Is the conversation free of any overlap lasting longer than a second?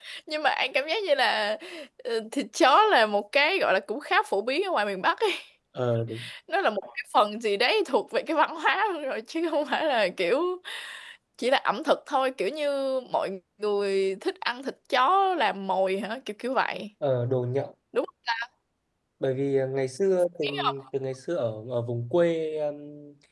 Yes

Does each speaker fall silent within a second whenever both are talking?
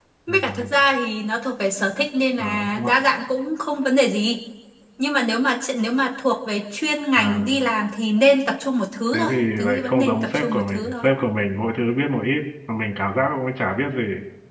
No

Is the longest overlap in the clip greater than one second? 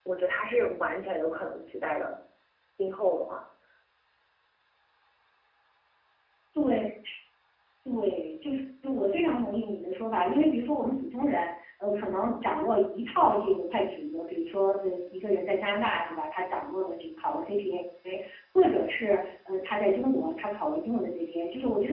No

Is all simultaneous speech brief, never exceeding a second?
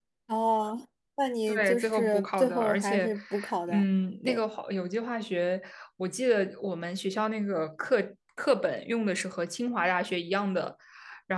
No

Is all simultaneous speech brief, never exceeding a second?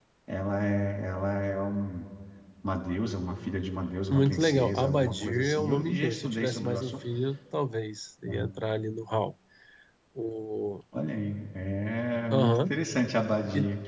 No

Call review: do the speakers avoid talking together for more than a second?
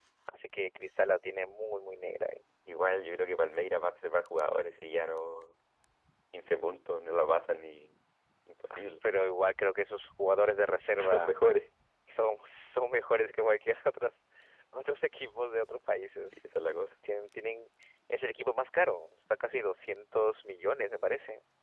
Yes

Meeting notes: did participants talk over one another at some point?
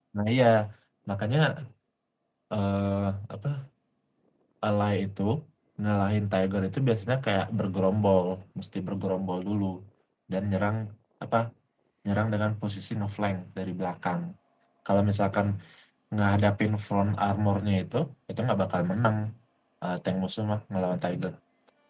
No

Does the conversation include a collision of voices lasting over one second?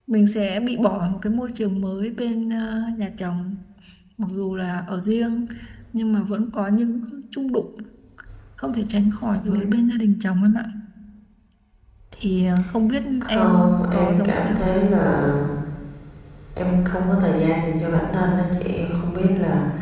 Yes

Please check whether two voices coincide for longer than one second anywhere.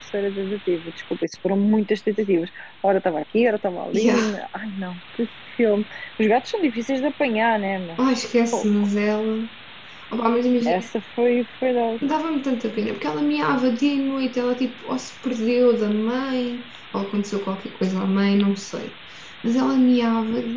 No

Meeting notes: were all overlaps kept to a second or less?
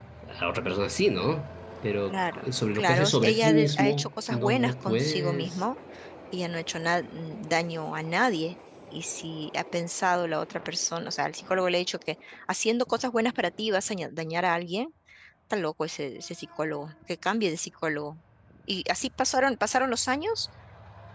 No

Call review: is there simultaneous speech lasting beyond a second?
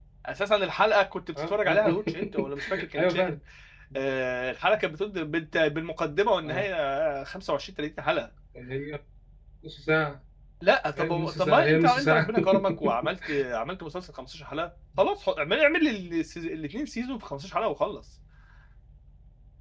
Yes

